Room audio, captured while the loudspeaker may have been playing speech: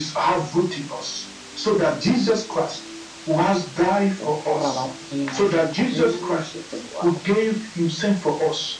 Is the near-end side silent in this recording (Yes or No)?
No